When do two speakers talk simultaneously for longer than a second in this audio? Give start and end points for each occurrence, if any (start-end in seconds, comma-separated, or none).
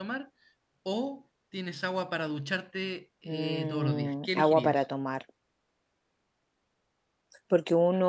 3.2-4.8